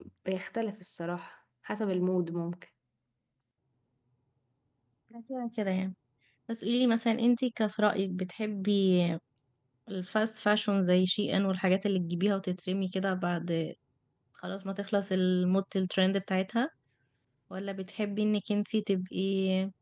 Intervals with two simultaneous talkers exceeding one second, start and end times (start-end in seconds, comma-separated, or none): none